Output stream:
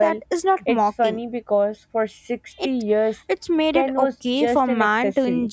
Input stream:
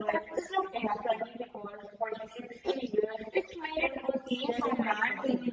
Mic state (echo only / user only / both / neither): echo only